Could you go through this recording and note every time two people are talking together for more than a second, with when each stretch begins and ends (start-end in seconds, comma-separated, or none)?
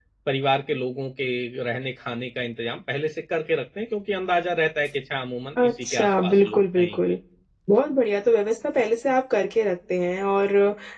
5.6-7.2